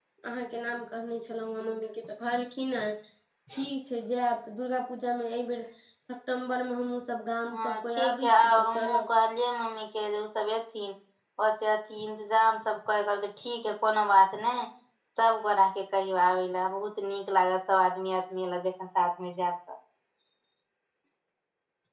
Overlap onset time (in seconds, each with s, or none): 7.5 s